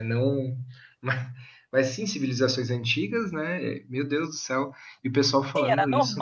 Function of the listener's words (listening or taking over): taking over